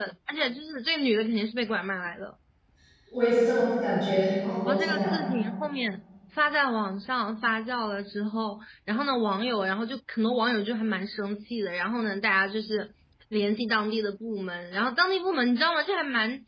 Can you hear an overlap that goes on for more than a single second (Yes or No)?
No